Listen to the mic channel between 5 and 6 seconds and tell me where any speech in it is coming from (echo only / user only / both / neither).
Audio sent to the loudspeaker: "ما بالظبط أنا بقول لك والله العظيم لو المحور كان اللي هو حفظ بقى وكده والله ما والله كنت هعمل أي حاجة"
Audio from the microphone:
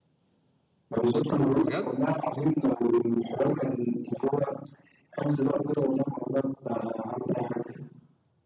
echo only